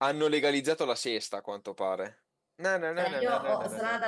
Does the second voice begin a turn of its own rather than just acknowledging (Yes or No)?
Yes